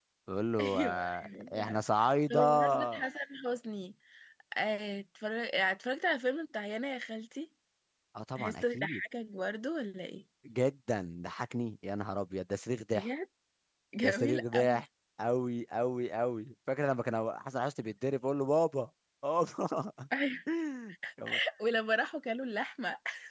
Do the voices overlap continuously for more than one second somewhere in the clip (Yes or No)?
Yes